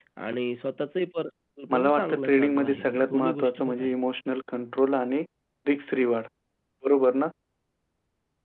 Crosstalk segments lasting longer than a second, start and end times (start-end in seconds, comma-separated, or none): 1.7-4.0